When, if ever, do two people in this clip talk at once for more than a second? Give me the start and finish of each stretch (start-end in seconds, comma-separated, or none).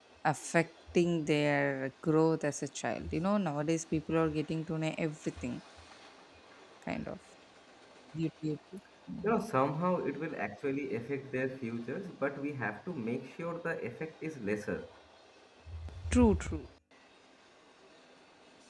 none